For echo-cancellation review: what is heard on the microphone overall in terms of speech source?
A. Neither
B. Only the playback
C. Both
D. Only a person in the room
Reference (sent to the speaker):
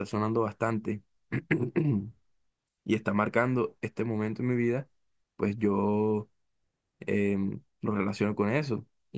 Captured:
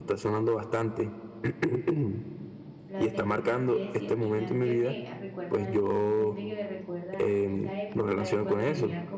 C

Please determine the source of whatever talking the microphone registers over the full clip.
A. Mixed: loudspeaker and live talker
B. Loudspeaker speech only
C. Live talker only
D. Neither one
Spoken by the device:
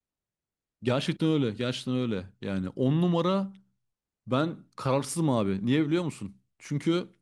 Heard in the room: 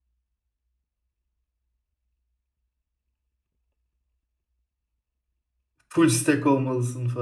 C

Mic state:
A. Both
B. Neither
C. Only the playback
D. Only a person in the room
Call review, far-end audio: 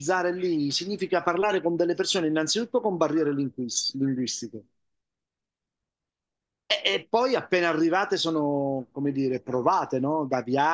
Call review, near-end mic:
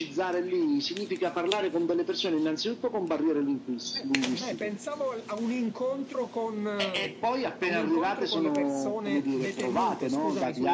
A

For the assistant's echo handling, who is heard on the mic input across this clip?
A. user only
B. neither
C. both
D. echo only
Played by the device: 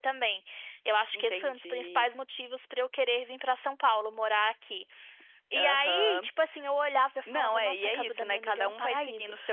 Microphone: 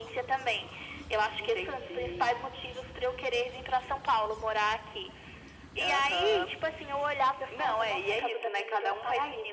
D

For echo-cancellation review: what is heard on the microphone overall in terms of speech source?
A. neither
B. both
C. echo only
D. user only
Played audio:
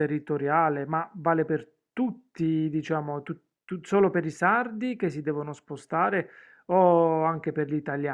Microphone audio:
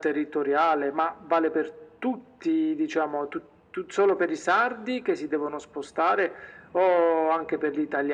C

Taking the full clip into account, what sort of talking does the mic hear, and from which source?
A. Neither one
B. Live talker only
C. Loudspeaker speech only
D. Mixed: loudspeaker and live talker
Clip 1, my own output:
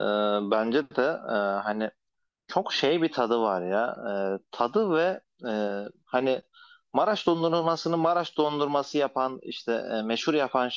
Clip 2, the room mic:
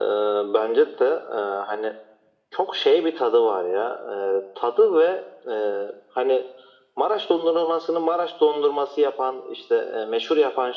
C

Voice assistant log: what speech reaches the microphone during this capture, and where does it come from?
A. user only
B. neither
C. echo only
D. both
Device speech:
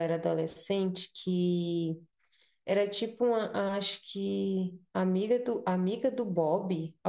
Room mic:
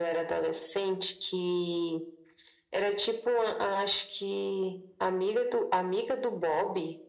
C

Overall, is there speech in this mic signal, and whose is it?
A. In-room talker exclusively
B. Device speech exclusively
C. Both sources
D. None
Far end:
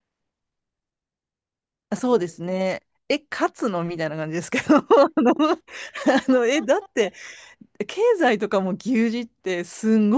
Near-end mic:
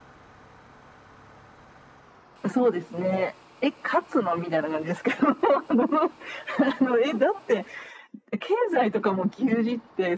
B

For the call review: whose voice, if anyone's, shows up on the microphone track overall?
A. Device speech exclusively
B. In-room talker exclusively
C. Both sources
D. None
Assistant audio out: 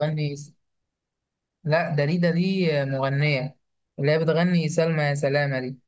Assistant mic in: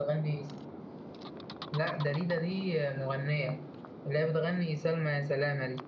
A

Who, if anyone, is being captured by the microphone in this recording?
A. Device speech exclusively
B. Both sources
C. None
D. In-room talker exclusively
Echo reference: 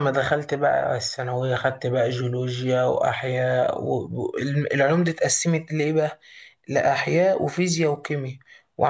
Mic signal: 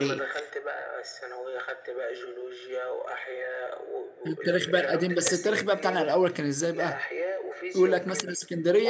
B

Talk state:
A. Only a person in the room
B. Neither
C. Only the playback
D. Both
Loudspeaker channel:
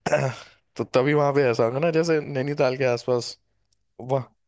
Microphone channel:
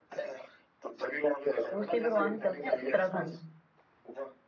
D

